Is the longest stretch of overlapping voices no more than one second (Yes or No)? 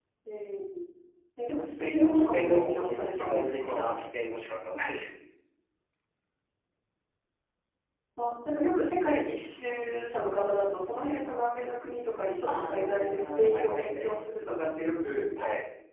No